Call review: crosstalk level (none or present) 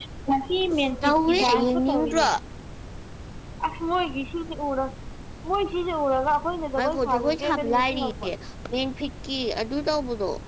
present